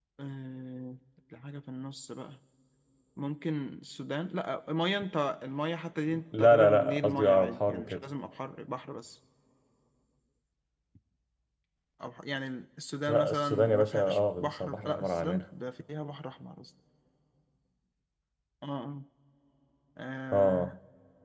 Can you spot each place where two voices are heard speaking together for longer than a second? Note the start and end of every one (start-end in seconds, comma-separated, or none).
6.4-8.0, 13.1-15.4